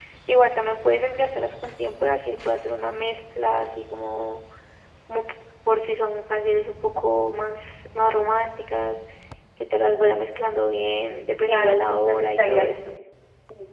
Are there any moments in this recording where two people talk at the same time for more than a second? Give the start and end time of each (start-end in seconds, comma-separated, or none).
11.5-12.7